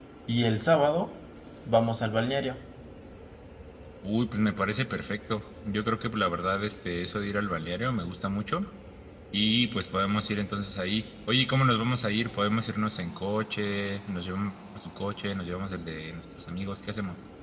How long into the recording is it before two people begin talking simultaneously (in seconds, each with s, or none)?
none